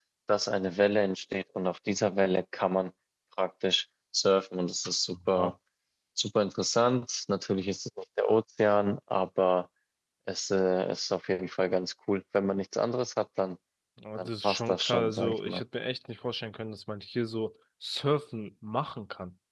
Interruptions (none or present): present